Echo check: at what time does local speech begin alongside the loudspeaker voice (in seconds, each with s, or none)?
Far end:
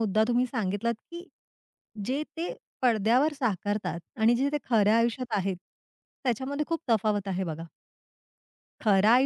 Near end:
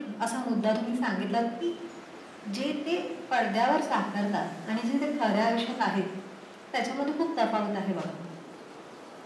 none